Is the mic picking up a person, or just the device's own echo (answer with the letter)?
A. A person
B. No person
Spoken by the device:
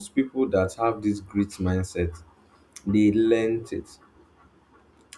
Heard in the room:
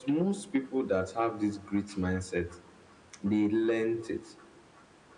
B